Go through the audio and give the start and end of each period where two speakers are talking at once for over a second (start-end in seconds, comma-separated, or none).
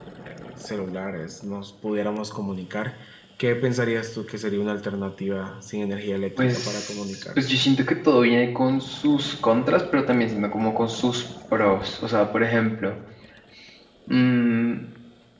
6.4-7.6